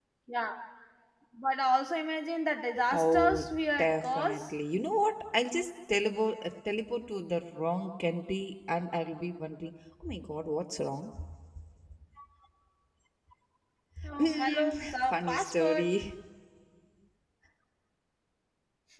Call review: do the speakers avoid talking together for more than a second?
No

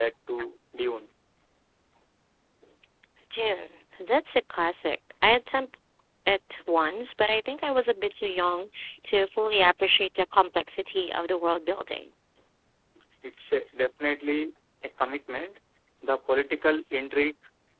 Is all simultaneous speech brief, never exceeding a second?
Yes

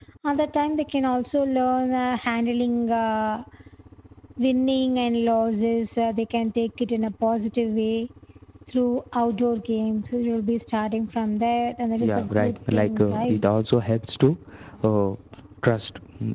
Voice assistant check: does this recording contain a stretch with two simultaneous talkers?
Yes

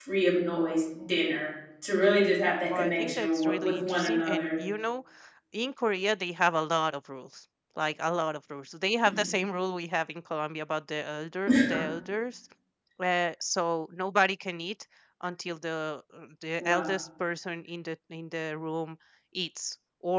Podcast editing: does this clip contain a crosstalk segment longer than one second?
Yes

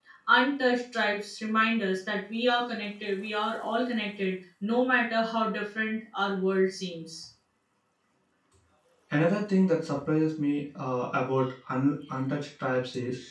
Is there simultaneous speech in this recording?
No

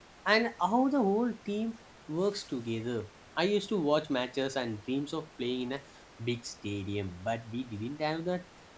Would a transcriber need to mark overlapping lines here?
No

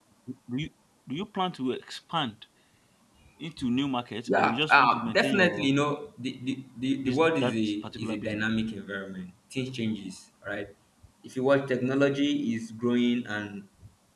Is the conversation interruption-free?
No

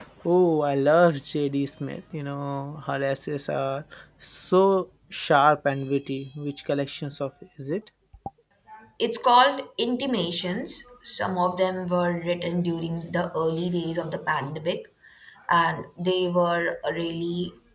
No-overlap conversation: Yes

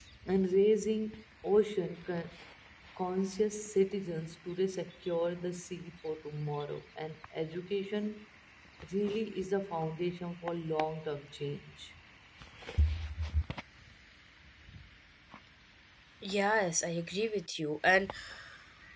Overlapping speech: No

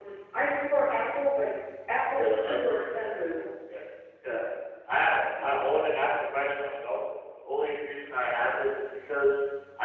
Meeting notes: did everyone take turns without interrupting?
No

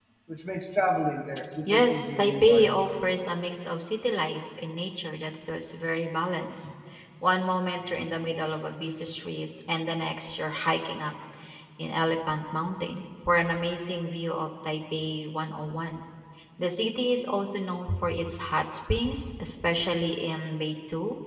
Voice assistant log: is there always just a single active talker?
No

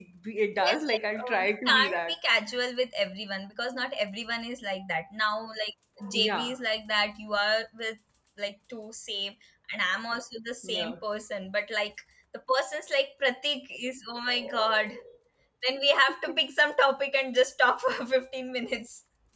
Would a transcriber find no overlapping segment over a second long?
No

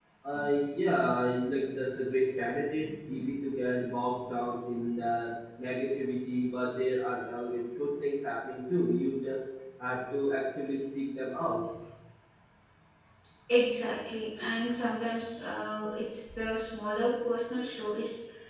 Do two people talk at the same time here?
No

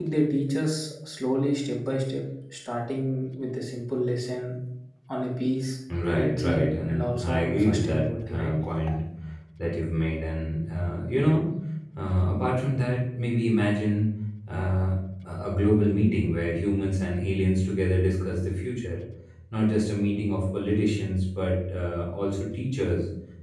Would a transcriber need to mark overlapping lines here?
Yes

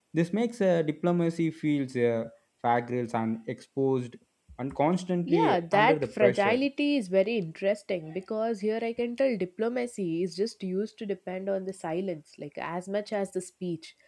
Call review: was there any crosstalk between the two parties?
Yes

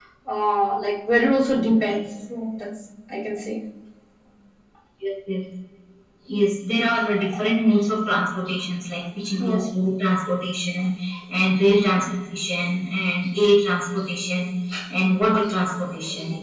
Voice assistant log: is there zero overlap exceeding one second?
Yes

